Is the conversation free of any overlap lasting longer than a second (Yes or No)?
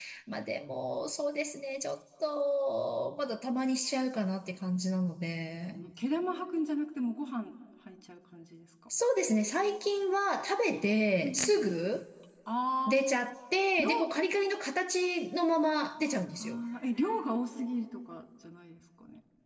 Yes